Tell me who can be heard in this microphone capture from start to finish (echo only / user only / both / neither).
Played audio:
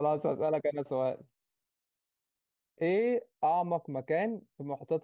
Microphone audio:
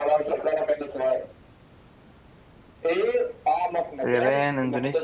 both